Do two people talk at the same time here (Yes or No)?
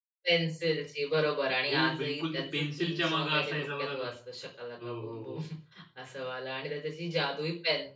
Yes